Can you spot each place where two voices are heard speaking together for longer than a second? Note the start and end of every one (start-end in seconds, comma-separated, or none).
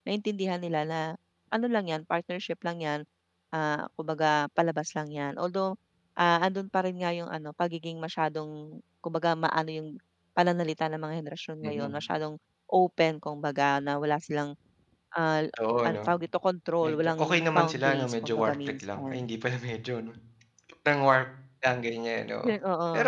16.8-19.2